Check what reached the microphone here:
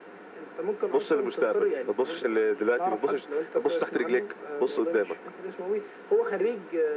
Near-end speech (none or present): none